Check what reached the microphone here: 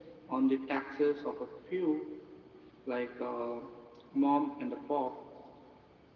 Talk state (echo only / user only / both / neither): echo only